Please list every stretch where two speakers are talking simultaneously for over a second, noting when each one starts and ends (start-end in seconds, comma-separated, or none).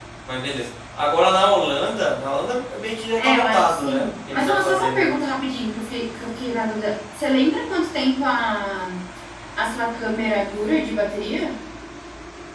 3.2-5.1